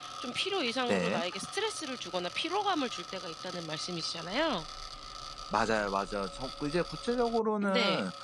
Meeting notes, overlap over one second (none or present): none